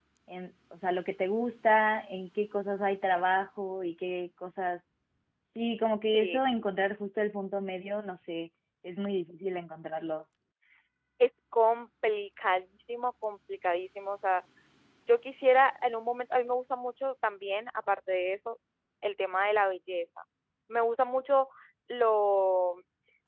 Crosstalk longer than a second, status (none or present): none